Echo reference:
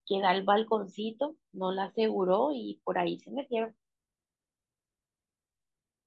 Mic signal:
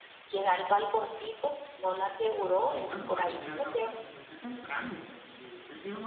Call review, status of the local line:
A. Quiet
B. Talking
B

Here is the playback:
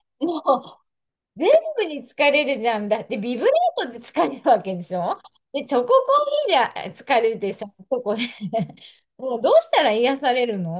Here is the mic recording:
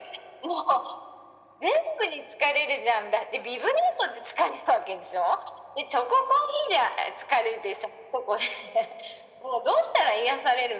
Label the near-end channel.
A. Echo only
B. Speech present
A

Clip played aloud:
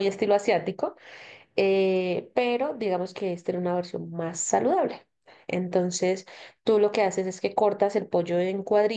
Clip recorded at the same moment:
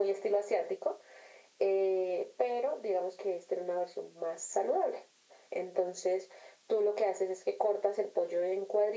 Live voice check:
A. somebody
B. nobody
B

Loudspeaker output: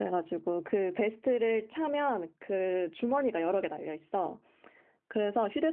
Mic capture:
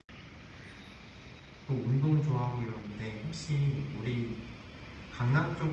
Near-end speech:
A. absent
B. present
B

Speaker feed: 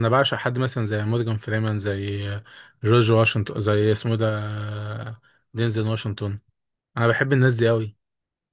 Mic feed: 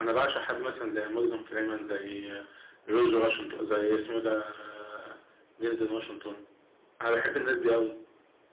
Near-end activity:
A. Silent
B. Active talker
A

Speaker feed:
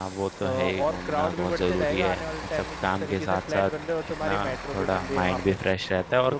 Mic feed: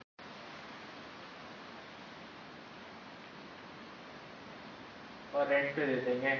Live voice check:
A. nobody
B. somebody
B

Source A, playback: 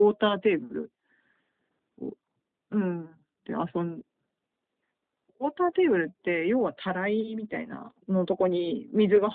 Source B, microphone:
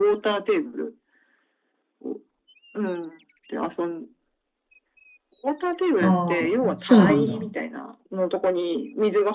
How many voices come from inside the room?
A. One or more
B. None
A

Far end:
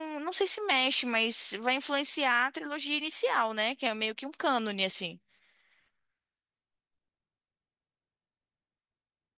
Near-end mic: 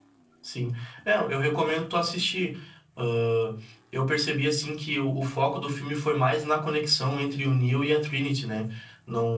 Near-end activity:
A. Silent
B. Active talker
B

